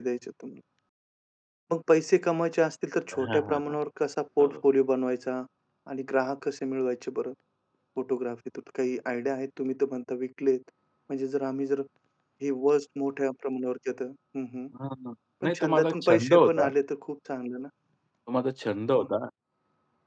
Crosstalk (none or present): present